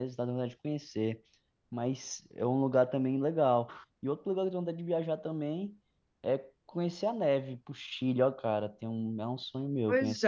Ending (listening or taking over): taking over